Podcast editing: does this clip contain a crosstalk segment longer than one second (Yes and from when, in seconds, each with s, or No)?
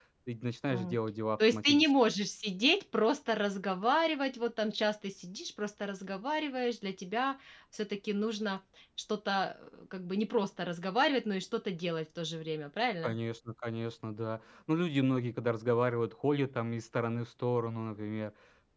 No